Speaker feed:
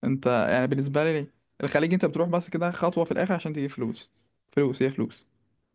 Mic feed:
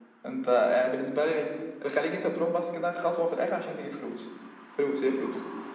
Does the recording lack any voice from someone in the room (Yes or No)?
Yes